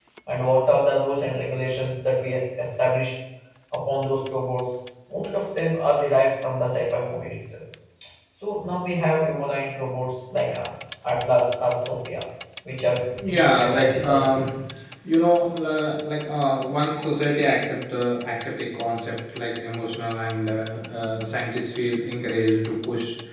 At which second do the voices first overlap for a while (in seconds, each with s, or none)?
13.1 s